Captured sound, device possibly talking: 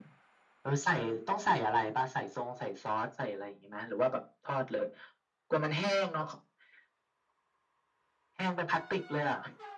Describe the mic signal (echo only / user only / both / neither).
echo only